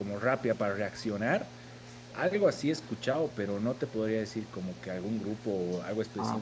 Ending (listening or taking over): taking over